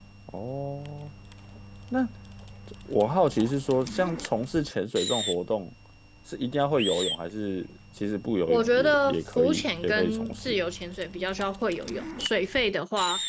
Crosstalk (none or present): present